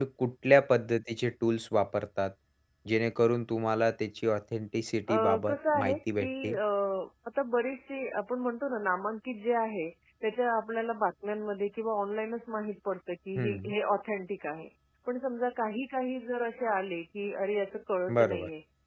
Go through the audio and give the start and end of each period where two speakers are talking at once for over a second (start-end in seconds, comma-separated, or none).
5.1-6.5